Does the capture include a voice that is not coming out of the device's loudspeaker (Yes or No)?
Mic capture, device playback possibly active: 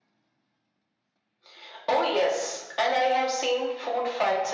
No